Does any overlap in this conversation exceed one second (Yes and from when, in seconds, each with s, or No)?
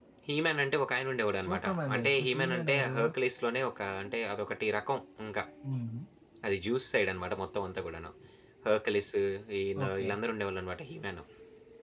Yes, from 1.4 s